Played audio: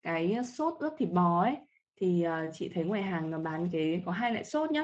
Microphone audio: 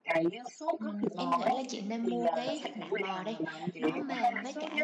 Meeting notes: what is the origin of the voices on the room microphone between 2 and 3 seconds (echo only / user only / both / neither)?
both